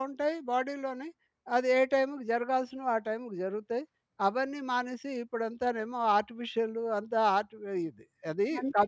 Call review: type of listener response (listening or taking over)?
taking over